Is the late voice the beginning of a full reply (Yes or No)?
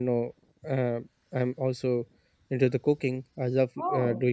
No